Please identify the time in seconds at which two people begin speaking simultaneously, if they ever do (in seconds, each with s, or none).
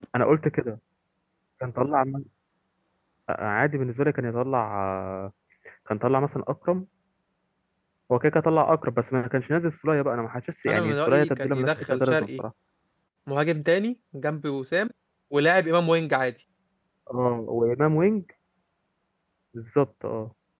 10.7 s